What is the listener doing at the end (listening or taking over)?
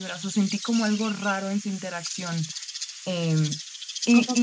taking over